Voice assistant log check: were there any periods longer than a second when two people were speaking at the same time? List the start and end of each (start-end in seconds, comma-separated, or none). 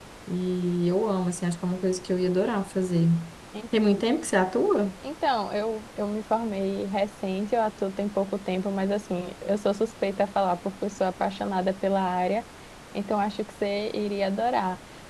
none